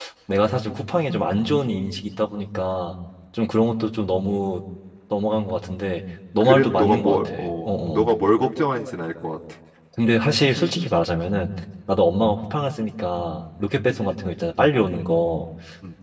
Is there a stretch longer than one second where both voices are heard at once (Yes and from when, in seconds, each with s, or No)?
Yes, from 6.4 s